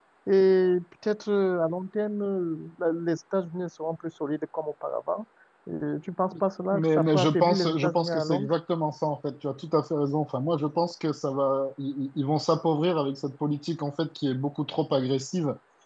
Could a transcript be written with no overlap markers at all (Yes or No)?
No